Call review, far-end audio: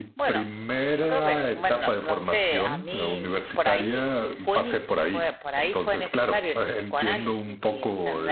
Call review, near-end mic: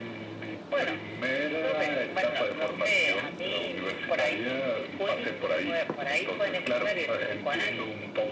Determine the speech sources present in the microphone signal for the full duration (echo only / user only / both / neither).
echo only